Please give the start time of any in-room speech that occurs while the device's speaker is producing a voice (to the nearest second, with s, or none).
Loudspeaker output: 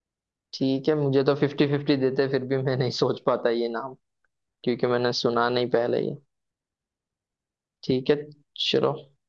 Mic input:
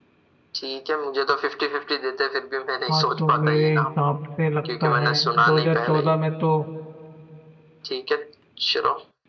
3 s